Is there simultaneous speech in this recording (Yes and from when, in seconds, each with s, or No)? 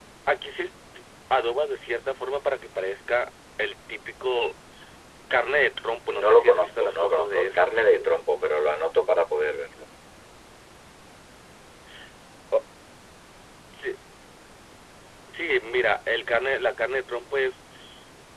Yes, from 6.1 s